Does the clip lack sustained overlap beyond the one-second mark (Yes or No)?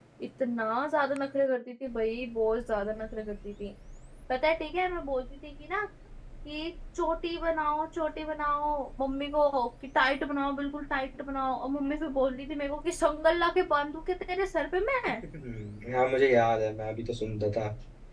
Yes